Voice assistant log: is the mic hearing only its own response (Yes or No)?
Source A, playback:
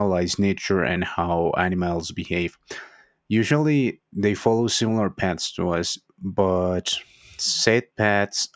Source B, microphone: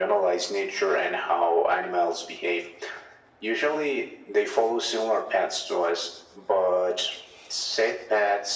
Yes